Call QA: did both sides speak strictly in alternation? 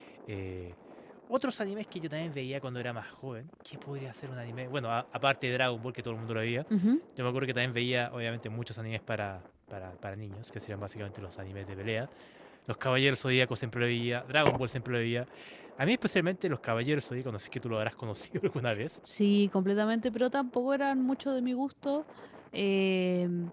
Yes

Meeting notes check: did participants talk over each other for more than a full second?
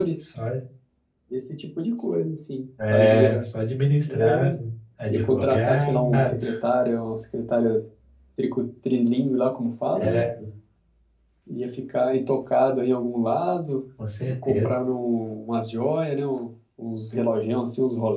Yes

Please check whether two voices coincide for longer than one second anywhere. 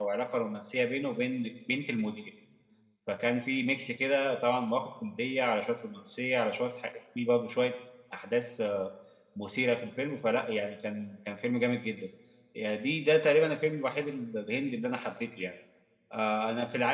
No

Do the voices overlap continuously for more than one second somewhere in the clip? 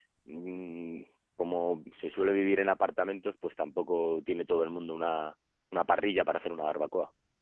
No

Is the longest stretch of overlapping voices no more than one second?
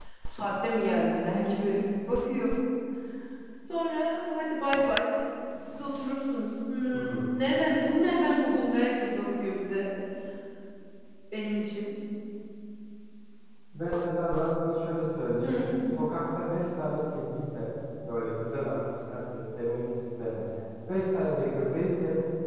Yes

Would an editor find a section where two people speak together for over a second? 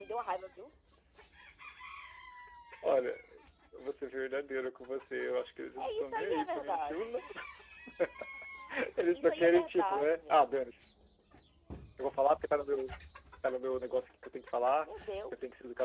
Yes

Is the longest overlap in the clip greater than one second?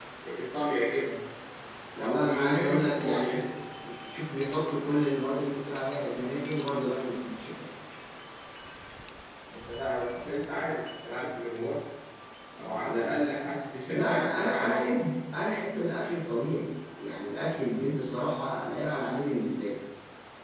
Yes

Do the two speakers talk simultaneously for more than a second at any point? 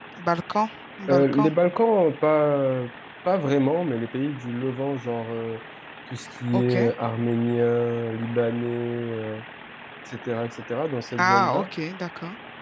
No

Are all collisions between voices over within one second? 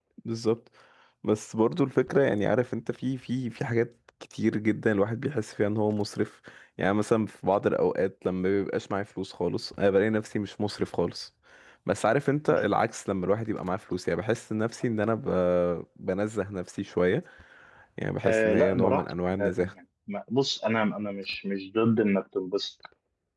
No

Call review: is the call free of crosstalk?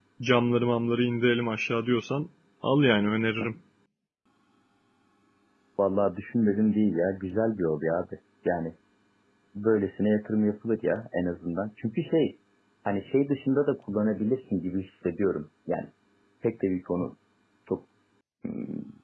Yes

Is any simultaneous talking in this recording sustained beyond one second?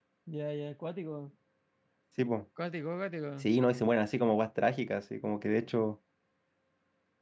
No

